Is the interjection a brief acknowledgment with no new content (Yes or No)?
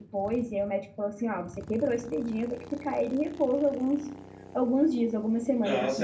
No